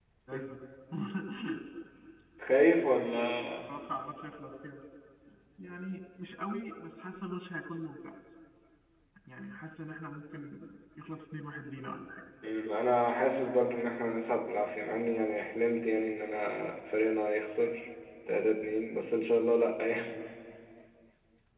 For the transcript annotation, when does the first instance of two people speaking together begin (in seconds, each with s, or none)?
none